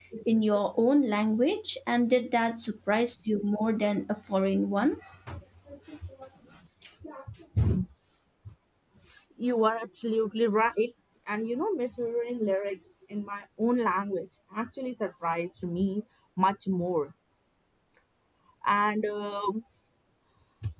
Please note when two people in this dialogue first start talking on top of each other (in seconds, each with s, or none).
none